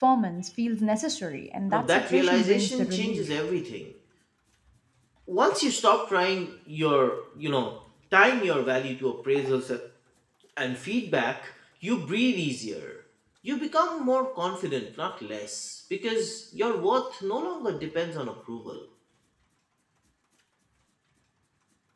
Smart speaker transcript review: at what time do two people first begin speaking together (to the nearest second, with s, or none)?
2 s